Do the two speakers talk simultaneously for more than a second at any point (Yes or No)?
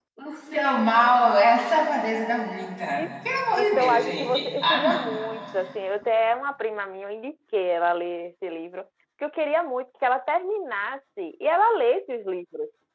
Yes